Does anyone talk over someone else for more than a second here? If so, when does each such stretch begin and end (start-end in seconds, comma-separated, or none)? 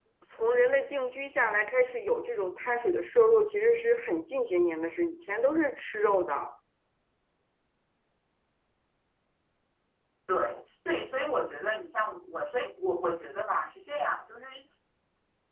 none